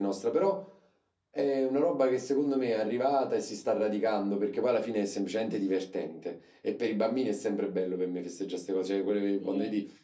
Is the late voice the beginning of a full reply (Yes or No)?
No